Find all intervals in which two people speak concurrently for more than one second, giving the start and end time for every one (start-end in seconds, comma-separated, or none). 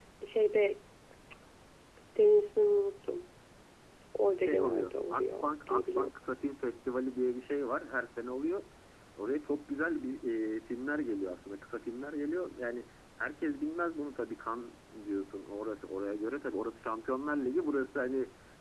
4.4-6.1